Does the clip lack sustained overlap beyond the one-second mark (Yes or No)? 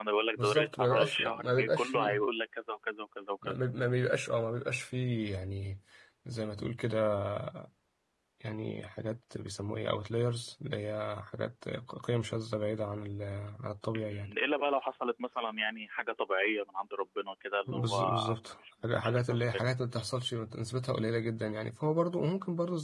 No